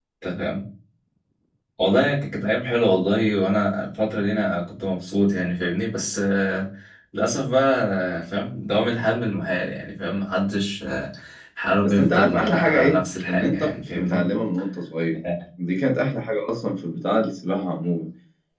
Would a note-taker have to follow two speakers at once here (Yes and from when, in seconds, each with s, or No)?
Yes, from 11.8 s